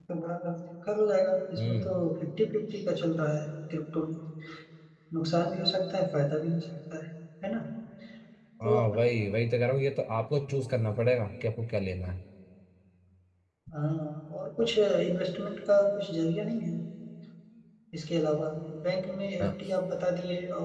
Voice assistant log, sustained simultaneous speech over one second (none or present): none